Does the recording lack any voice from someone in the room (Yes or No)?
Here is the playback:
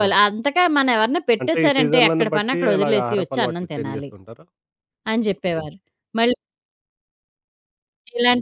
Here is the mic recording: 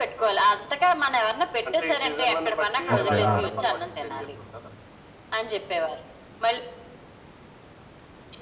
No